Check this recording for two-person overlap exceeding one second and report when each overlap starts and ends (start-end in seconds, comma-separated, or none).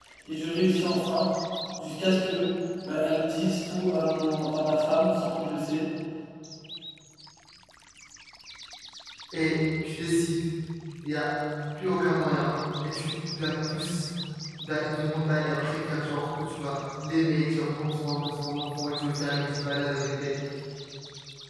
none